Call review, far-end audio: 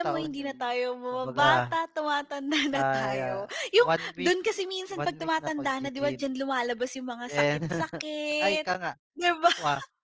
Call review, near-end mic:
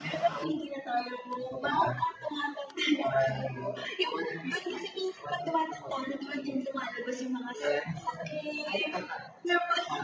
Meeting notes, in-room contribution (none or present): none